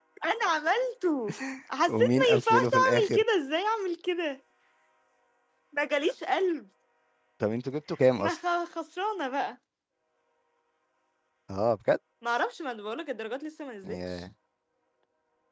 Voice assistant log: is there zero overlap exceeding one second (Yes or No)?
No